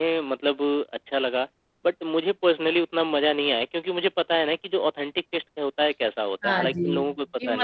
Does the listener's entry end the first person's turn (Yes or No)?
Yes